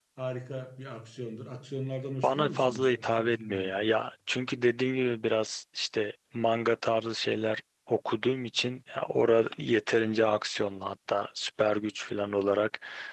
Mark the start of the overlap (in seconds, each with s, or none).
2.2 s